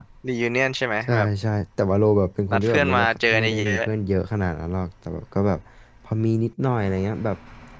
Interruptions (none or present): present